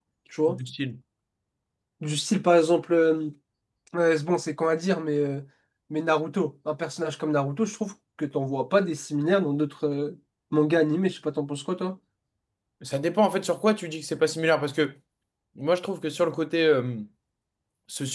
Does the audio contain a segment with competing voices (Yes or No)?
No